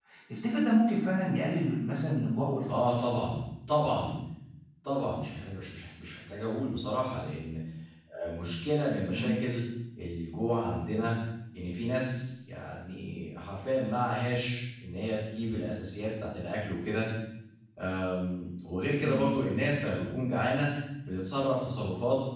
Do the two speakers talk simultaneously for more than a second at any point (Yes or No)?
No